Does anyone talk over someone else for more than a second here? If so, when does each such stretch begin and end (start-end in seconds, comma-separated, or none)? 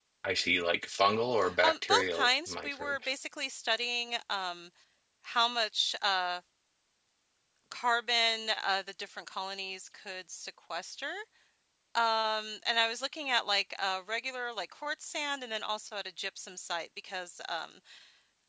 1.6-3.1